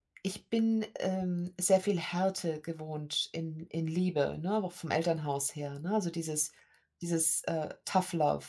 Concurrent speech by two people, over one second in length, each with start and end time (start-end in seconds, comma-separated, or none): none